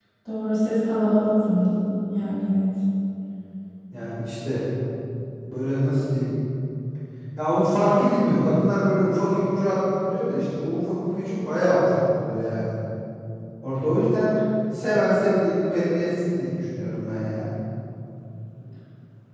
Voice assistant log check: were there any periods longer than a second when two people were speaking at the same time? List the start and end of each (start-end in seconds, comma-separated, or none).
none